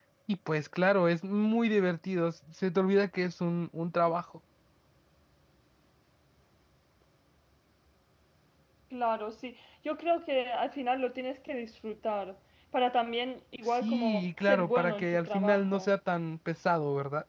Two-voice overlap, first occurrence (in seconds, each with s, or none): 13.6 s